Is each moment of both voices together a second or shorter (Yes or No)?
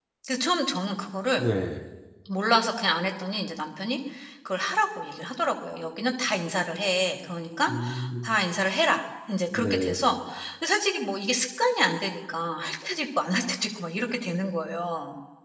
Yes